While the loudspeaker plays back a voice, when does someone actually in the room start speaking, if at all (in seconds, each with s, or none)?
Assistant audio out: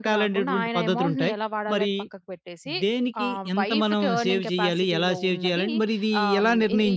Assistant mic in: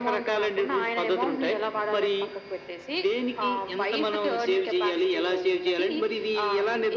none